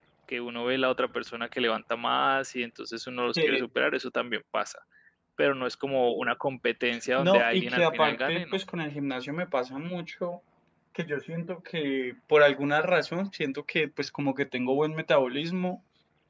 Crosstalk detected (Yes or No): Yes